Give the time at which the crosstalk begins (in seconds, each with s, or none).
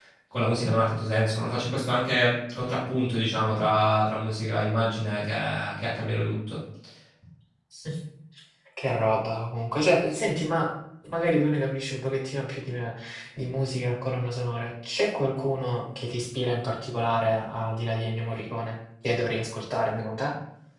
none